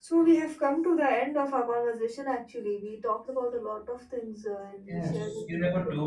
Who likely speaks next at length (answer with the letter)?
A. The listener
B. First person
A